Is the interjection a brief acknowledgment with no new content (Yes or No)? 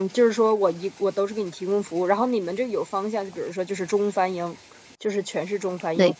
Yes